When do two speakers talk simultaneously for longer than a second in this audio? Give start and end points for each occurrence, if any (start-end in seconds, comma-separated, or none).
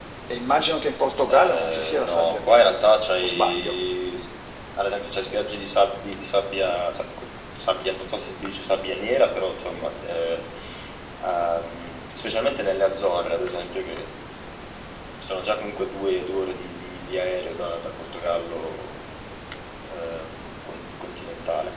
1.3-3.8